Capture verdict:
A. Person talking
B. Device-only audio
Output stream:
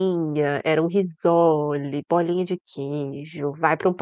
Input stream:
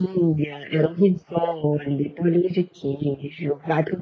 B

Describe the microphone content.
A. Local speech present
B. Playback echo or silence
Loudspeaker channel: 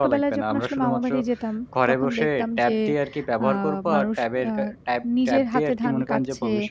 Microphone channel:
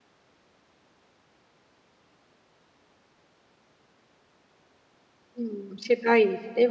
A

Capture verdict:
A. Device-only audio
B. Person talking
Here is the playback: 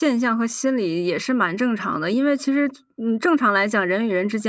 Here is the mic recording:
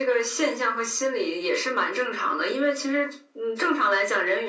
A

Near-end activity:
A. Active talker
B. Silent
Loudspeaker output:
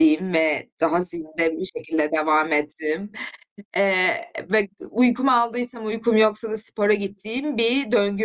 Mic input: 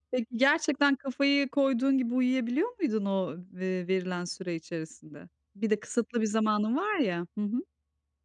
A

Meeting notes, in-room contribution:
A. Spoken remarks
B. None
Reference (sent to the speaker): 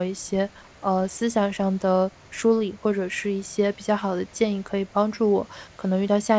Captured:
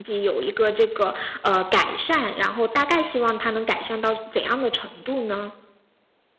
A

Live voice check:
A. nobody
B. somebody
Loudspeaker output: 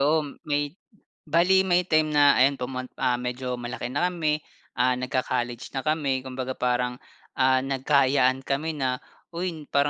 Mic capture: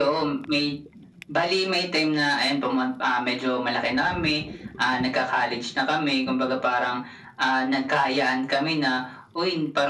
A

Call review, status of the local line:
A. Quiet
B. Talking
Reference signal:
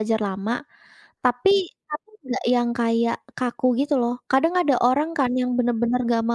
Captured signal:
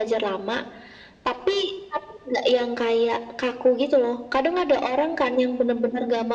A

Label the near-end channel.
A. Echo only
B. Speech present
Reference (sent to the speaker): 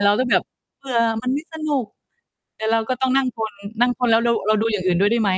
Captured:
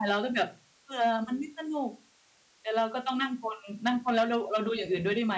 A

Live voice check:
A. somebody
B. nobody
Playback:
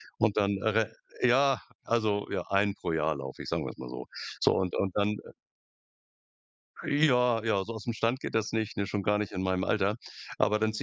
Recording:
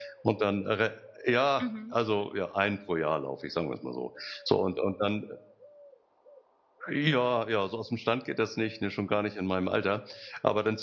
A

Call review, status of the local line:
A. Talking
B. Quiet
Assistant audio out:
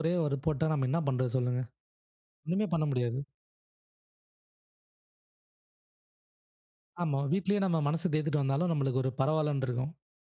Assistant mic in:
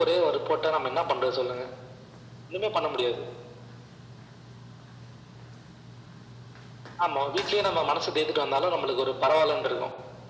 B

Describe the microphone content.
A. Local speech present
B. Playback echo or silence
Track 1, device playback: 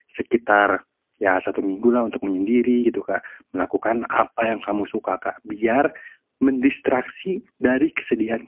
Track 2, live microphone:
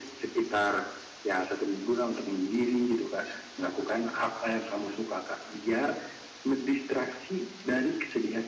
B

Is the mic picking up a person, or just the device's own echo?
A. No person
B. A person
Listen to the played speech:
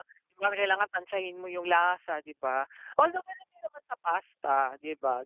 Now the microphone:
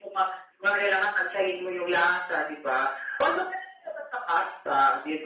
A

